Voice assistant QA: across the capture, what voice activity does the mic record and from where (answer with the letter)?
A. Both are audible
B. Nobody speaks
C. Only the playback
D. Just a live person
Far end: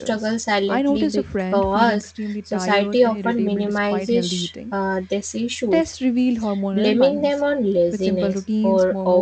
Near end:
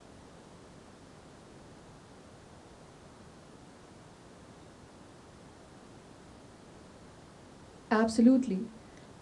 D